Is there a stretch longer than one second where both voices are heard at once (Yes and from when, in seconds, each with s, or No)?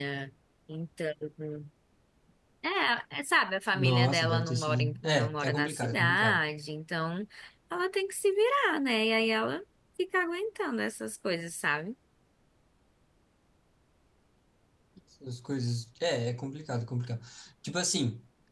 Yes, from 3.7 s